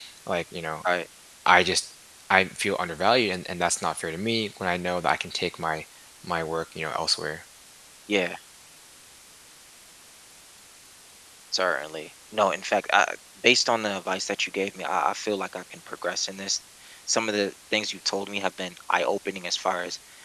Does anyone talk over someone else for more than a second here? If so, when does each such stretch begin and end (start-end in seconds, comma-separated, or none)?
none